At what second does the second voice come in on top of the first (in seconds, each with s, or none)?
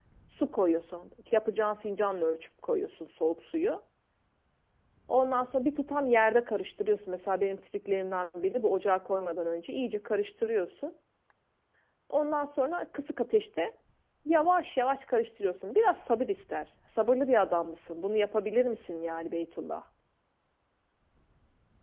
none